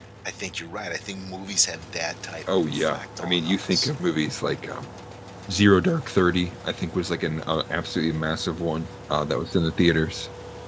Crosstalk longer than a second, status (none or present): present